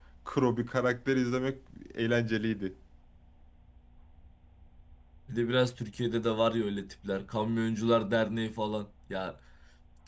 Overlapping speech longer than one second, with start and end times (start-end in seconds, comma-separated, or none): none